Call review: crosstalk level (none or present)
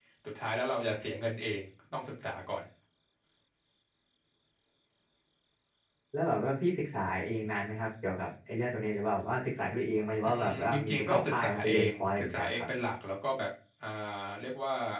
present